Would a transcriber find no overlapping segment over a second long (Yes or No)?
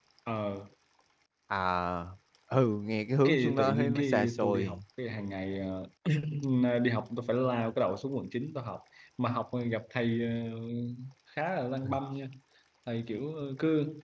No